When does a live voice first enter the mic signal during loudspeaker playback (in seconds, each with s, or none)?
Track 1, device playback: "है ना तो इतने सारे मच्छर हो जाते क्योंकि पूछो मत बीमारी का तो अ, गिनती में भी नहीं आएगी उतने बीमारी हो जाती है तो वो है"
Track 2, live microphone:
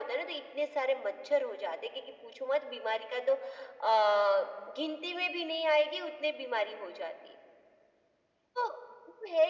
none